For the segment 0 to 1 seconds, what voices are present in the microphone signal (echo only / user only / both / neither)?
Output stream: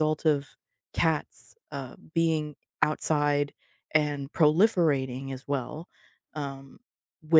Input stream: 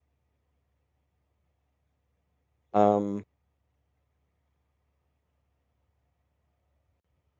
neither